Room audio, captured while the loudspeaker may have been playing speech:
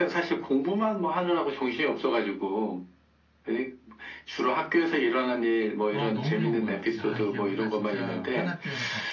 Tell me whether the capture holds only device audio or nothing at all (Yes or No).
No